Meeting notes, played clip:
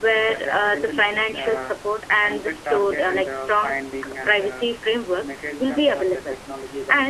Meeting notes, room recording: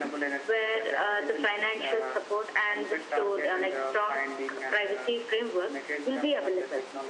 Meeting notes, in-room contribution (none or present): none